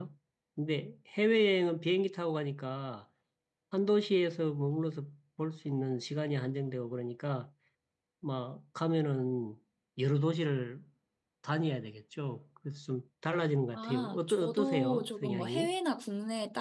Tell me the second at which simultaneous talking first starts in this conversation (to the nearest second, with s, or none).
14 s